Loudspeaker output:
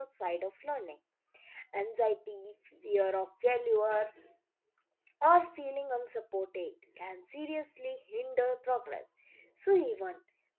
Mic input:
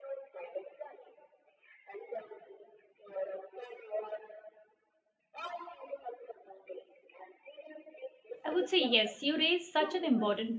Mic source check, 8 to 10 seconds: both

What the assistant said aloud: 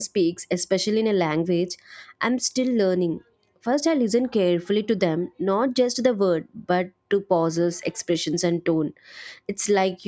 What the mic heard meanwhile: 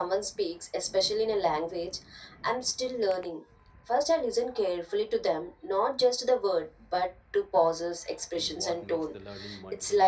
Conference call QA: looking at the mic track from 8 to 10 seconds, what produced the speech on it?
both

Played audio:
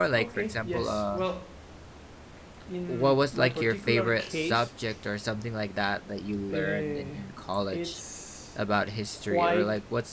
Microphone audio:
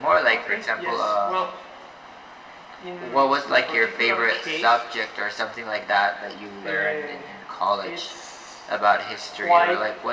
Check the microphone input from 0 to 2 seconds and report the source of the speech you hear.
echo only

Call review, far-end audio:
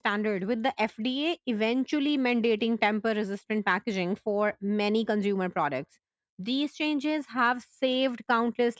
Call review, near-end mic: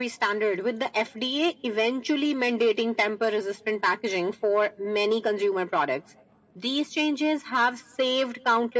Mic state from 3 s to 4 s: echo only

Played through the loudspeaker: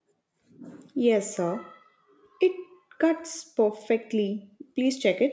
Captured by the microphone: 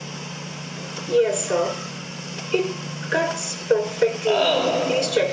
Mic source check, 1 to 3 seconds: echo only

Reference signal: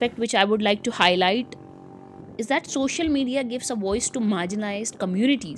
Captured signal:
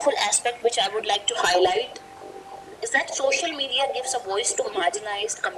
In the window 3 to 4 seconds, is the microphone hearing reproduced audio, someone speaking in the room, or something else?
echo only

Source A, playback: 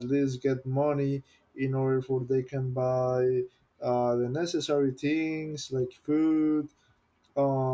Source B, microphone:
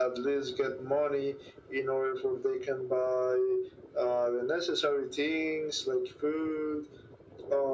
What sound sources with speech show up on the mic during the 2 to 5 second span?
echo only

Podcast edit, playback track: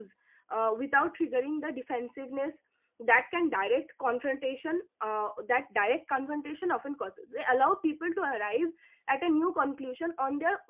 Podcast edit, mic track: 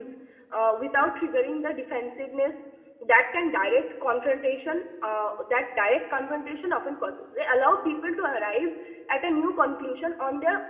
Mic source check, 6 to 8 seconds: echo only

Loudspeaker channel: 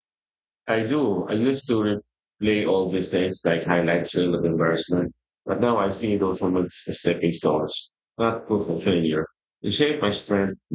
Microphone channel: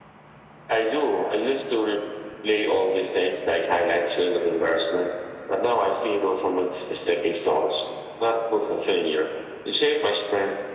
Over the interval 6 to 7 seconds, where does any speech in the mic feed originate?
echo only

